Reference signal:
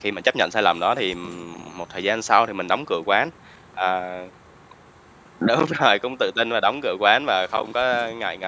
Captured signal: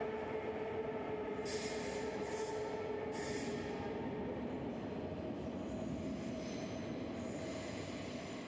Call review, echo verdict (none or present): none